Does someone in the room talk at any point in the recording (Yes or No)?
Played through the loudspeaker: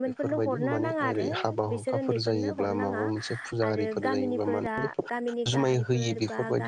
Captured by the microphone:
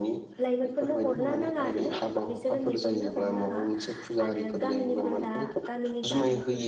No